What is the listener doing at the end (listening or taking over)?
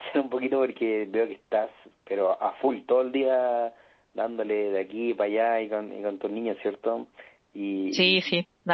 taking over